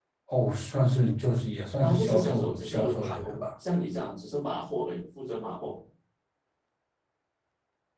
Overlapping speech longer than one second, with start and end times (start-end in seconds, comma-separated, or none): 1.8-3.4